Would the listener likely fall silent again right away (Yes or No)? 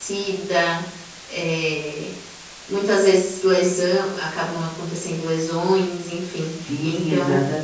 No